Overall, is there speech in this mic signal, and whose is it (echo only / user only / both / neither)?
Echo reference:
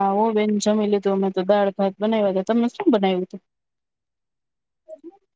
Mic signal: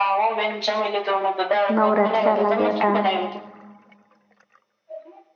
both